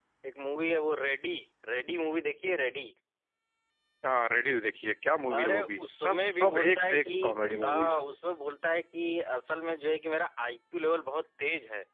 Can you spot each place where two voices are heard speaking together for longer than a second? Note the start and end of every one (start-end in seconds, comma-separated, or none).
5.3-7.1